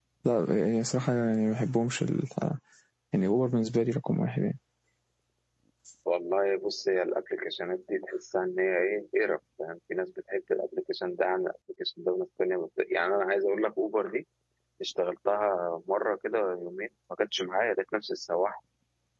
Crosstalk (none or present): none